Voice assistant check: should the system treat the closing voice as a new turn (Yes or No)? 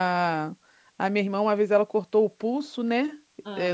No